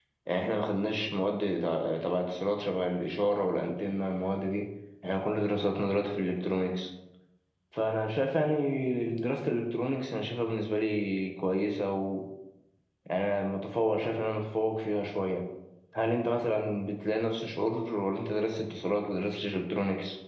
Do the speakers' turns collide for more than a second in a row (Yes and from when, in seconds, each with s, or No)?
No